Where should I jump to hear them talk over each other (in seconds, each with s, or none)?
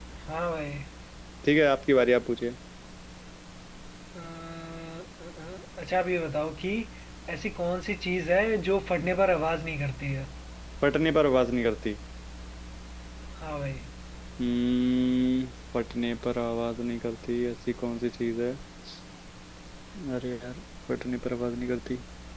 none